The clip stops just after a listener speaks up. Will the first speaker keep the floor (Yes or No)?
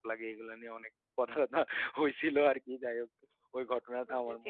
No